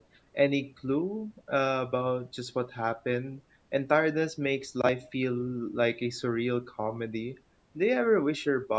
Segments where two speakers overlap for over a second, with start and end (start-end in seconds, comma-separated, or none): none